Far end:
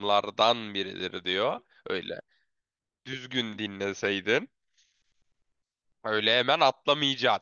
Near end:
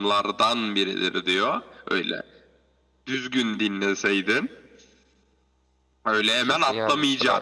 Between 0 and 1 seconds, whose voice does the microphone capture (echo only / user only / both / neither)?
echo only